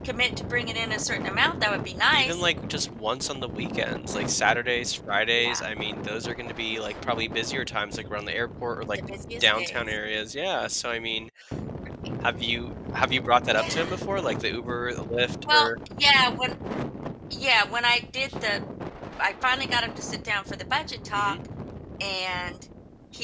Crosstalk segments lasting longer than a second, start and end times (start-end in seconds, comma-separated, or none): none